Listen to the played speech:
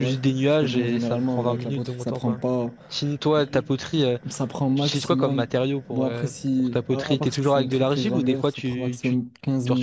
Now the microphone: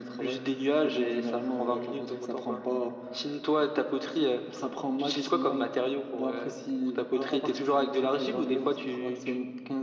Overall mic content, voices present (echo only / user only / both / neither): echo only